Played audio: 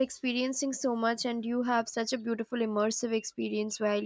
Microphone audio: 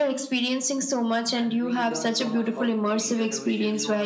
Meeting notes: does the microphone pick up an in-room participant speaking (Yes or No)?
Yes